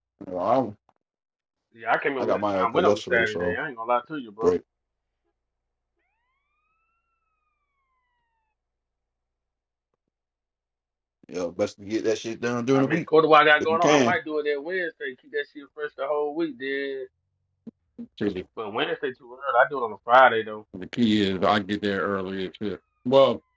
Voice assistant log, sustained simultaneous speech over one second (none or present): present